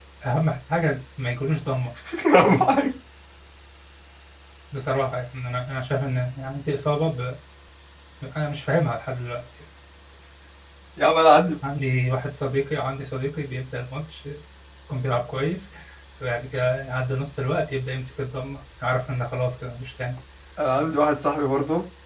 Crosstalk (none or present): none